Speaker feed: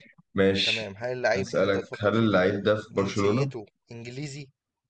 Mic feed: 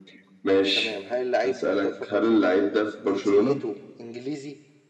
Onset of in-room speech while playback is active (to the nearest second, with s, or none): none